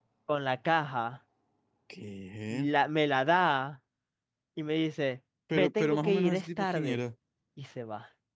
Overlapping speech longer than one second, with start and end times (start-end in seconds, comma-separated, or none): 5.5-7.0